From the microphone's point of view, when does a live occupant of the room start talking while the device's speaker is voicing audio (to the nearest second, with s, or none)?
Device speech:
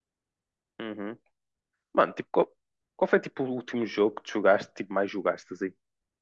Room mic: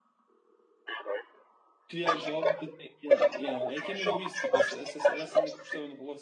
2 s